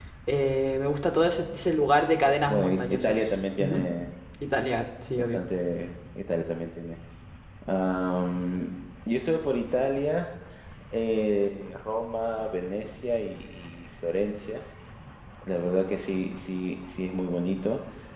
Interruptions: present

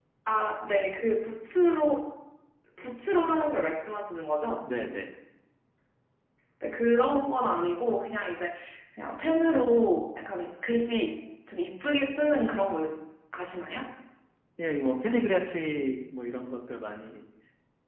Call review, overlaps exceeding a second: none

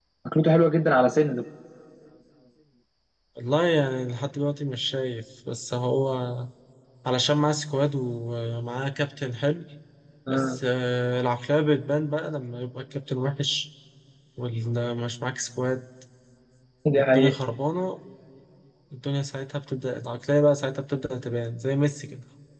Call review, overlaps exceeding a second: none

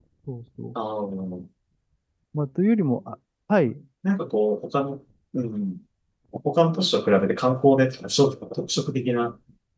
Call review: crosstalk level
none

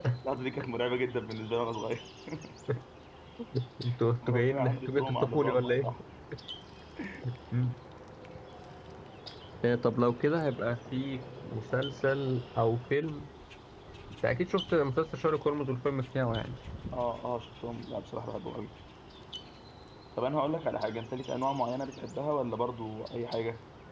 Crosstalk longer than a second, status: present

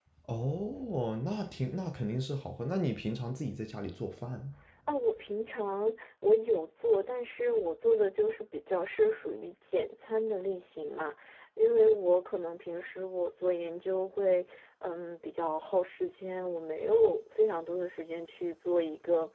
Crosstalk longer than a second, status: none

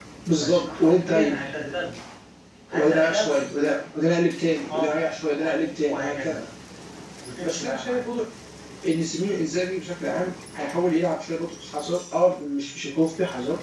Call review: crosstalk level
present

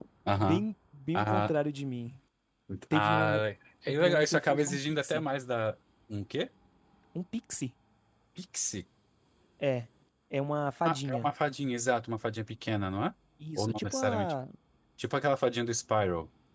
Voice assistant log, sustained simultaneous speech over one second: present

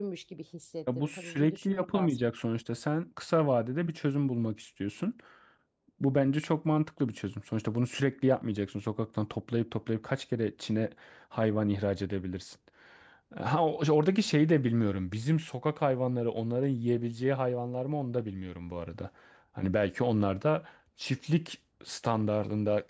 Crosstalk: present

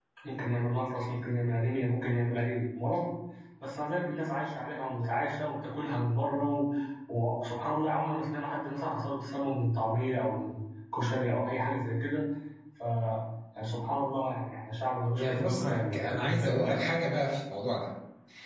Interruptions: present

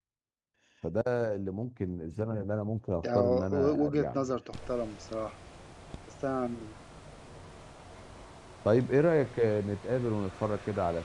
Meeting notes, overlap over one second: present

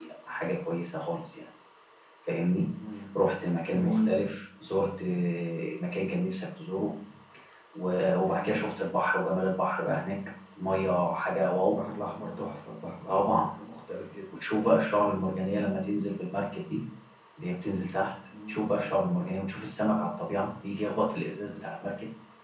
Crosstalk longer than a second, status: none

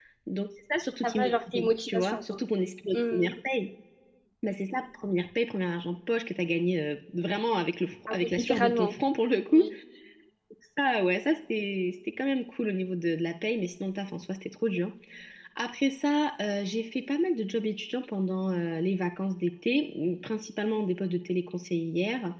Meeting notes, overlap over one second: present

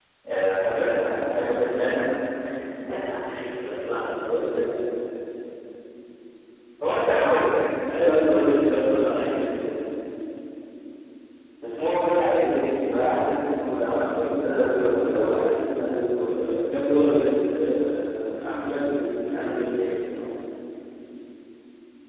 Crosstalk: present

